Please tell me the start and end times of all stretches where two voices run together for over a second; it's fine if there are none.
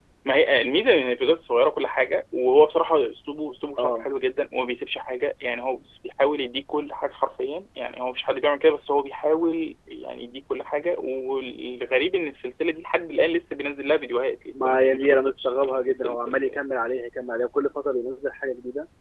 14.5-16.6

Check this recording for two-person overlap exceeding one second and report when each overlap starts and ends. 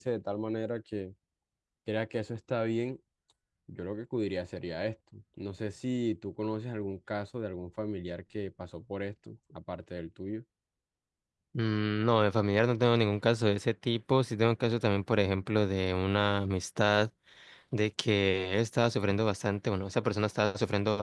none

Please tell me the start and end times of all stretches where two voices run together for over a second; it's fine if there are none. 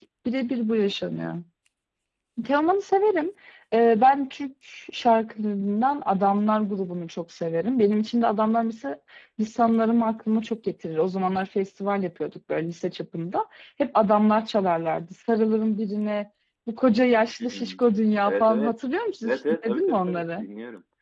19.2-20.4

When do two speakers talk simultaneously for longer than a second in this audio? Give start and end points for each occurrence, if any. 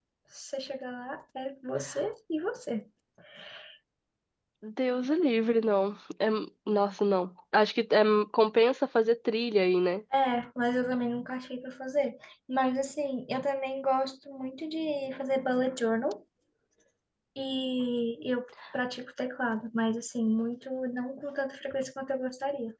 none

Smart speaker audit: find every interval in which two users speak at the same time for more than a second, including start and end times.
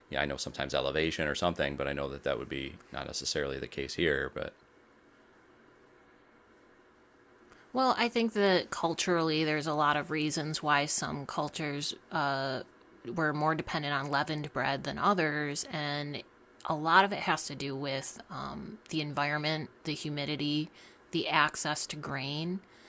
none

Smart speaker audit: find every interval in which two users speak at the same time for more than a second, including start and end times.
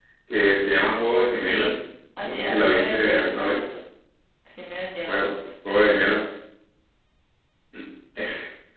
2.2-3.6

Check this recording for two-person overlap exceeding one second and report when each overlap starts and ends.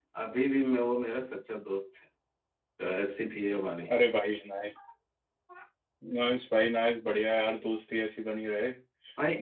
none

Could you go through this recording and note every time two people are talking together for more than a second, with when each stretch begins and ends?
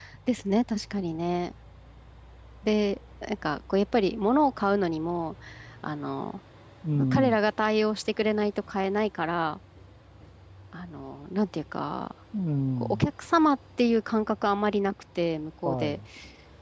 none

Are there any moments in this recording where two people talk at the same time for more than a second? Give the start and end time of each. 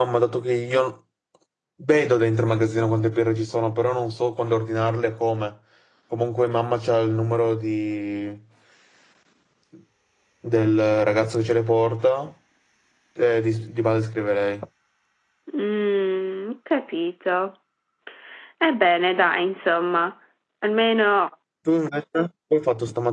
none

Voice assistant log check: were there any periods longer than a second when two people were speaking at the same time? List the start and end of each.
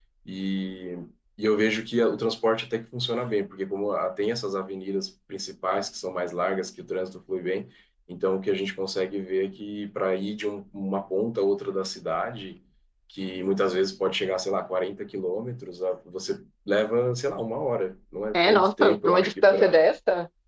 18.3-19.8

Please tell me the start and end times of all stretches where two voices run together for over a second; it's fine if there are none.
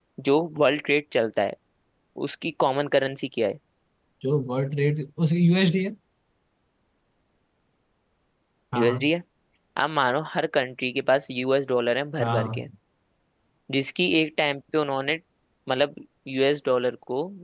none

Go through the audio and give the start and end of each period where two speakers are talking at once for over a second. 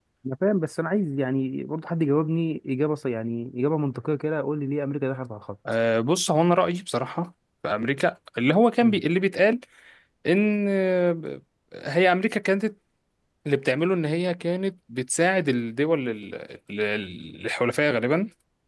none

